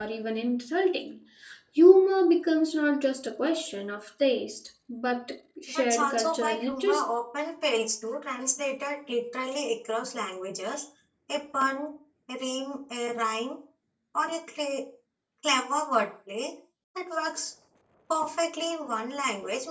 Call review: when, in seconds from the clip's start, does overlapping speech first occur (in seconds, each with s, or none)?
5.7 s